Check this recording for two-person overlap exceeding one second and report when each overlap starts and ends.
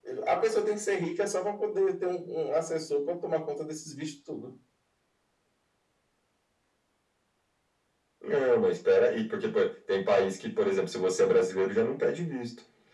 none

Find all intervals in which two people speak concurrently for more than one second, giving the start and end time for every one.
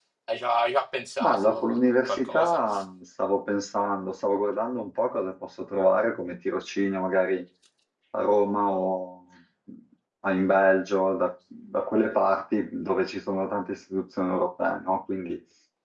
1.2-2.6

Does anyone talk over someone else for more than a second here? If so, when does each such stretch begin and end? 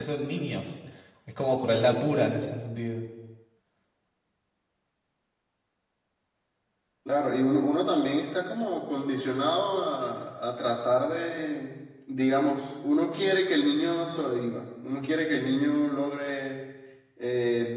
none

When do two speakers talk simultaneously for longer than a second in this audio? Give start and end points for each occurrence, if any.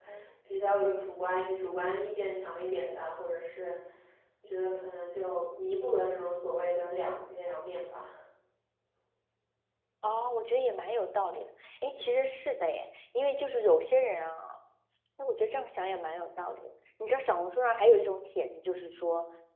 none

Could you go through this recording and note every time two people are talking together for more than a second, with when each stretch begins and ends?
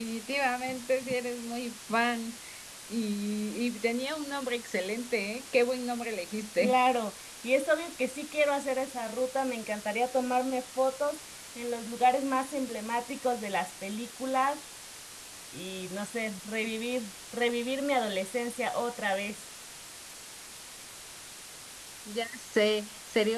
none

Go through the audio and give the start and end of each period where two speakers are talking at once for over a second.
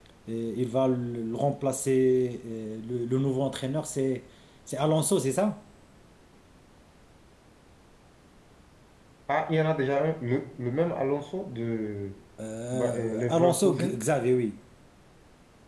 12.7-14.0

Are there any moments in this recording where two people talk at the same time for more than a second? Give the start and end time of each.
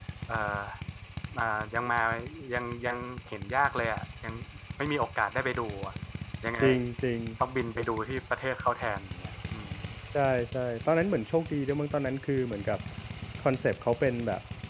none

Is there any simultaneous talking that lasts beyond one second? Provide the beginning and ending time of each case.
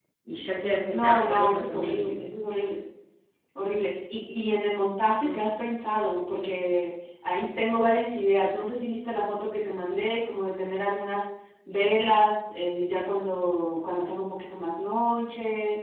0.9-2.1

